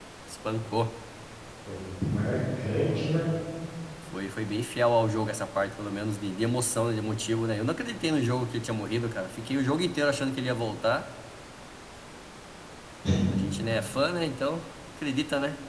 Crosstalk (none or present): none